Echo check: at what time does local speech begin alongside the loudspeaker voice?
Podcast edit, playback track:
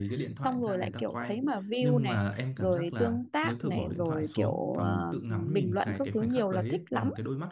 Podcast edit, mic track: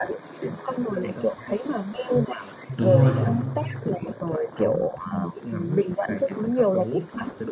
3 s

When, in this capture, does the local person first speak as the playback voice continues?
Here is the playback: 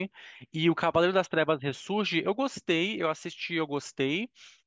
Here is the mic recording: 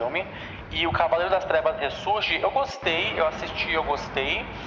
none

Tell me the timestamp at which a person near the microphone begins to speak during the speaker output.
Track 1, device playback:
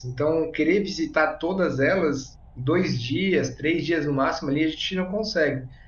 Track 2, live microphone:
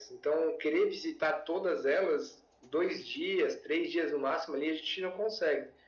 none

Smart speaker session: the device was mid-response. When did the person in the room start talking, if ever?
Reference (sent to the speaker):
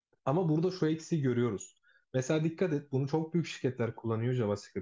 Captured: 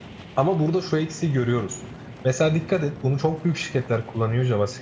none

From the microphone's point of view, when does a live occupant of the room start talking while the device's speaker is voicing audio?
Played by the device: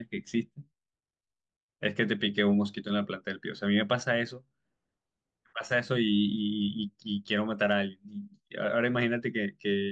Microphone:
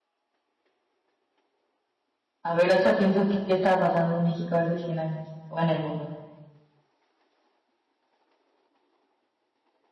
2 s

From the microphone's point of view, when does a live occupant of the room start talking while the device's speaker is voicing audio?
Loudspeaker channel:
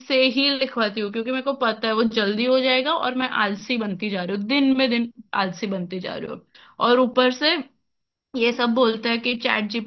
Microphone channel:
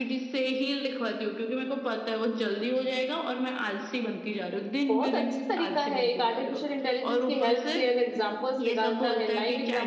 5 s

